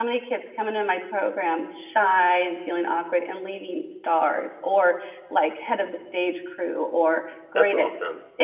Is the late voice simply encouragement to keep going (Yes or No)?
Yes